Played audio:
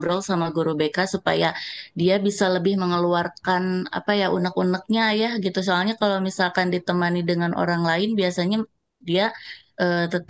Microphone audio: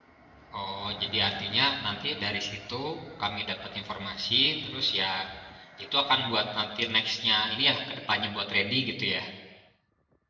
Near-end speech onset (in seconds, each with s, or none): 0.6 s